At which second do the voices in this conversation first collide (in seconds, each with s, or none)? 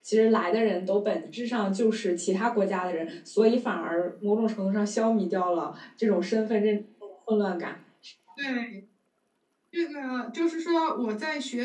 none